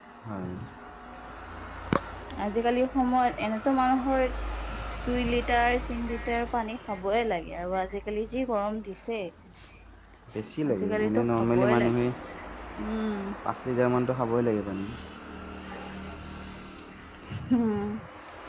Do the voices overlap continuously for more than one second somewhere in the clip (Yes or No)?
Yes